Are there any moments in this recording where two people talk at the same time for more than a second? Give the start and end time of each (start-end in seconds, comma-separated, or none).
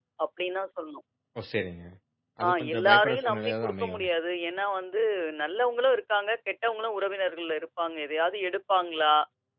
2.5-4.1